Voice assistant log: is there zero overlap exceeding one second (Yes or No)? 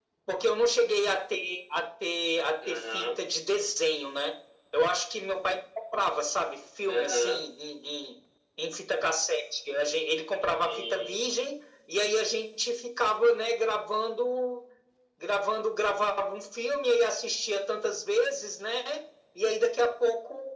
Yes